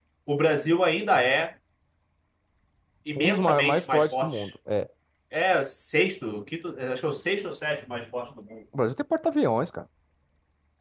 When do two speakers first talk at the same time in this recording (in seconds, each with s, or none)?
3.2 s